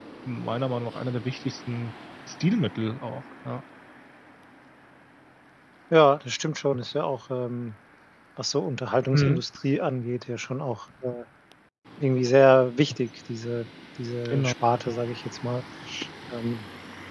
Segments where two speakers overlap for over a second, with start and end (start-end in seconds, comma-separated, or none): none